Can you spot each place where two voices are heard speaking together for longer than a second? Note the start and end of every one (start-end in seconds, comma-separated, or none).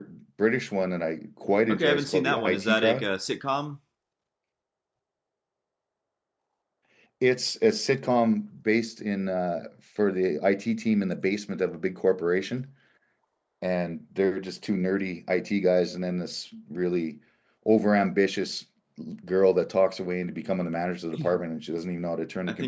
1.7-3.1